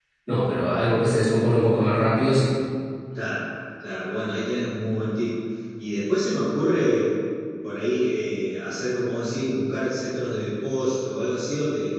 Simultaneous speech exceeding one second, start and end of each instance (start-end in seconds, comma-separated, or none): none